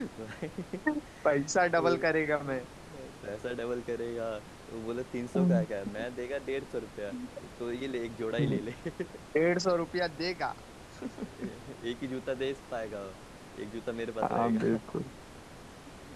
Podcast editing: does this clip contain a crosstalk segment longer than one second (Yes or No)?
No